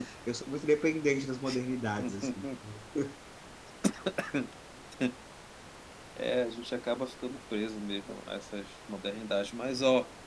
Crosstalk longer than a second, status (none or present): none